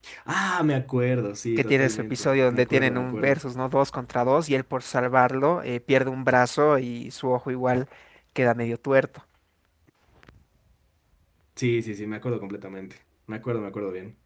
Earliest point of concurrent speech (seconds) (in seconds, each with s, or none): 1.6 s